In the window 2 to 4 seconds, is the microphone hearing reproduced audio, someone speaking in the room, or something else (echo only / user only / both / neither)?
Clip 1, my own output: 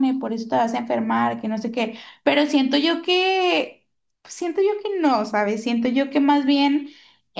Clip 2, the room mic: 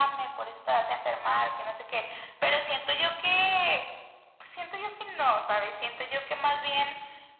echo only